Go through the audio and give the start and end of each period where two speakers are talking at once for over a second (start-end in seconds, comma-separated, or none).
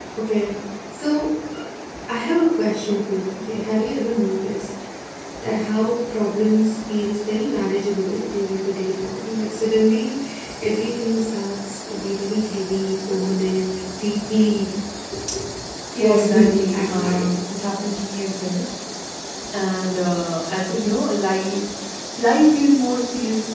16.0-17.3